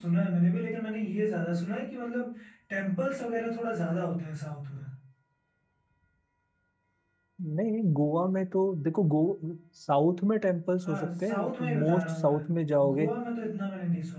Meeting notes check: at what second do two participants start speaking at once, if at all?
10.8 s

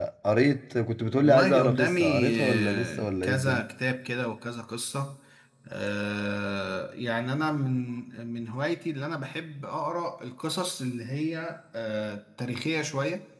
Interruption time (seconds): 1.2 s

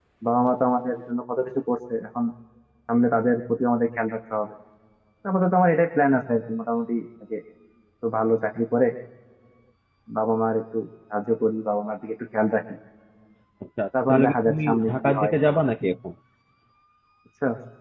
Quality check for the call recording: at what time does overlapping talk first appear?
14.1 s

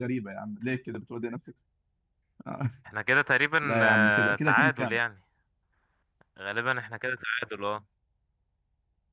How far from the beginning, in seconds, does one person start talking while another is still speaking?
3.6 s

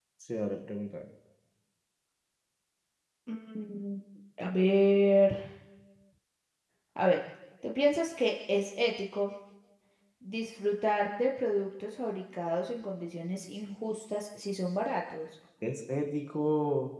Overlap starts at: none

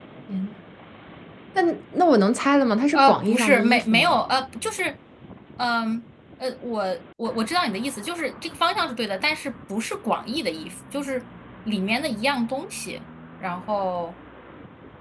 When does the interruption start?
2.9 s

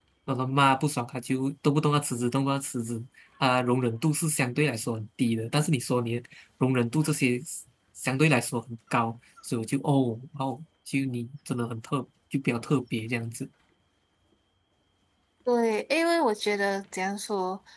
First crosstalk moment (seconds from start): none

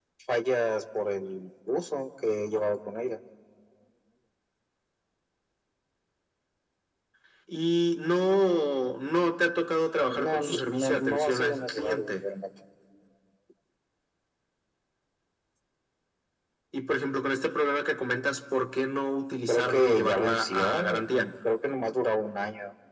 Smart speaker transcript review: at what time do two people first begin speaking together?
10.2 s

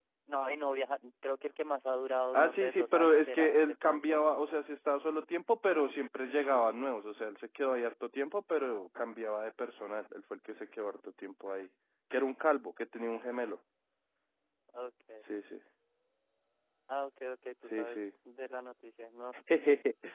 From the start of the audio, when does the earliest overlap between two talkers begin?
2.3 s

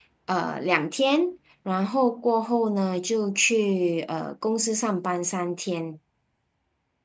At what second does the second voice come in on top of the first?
none

